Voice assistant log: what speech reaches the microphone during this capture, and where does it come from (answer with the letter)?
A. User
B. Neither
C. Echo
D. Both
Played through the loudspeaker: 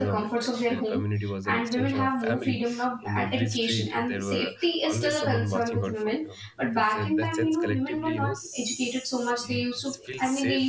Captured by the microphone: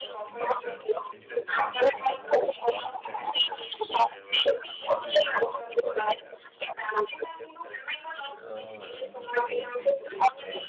D